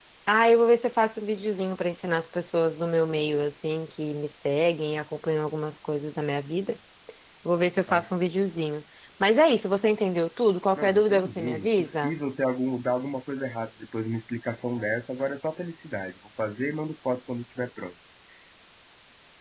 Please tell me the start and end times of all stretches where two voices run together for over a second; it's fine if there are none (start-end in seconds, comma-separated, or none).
10.8-12.2